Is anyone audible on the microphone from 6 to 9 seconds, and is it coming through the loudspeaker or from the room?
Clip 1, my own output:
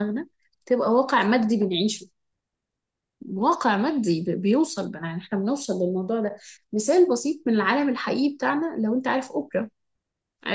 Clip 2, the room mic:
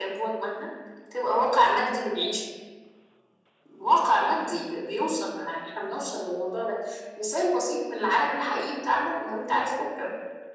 echo only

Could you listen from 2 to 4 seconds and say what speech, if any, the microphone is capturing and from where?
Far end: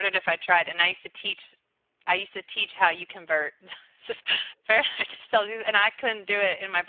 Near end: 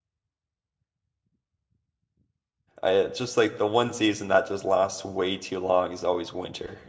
user only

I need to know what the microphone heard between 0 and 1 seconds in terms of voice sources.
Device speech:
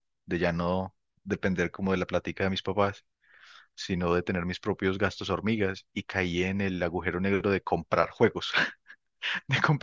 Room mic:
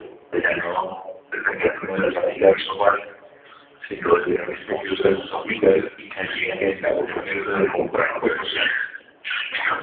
echo only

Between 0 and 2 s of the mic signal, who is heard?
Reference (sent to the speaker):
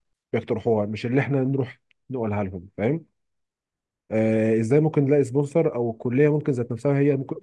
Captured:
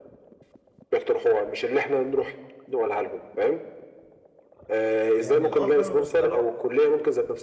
echo only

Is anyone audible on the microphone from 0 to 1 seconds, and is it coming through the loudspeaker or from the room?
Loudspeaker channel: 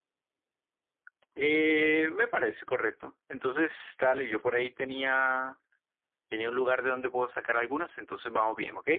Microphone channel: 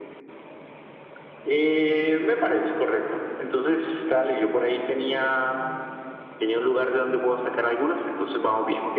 neither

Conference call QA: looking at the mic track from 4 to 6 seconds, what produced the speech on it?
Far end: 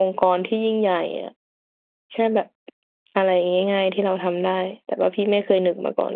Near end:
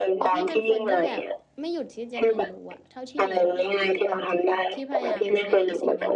both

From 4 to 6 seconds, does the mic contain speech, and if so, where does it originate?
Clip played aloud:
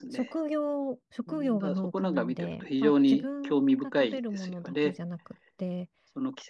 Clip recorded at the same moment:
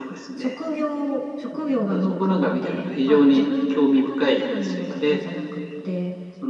echo only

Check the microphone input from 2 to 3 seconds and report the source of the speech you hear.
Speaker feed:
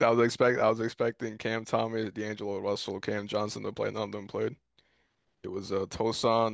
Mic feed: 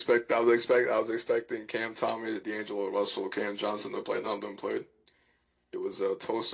echo only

